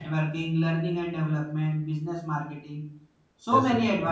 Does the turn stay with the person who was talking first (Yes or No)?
Yes